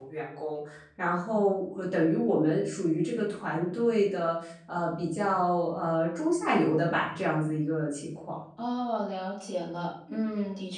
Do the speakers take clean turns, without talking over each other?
Yes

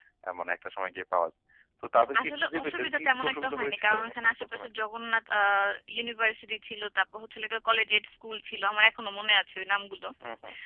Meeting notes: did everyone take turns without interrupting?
No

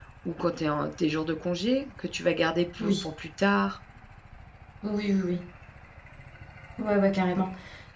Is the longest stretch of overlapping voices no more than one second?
Yes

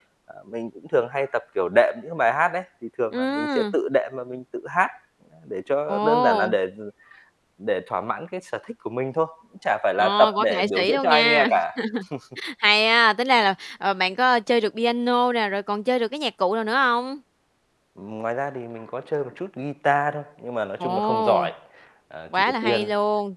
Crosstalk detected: Yes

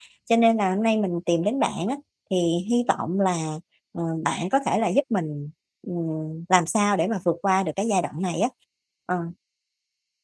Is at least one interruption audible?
No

